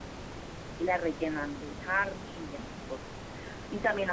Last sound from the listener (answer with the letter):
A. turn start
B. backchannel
B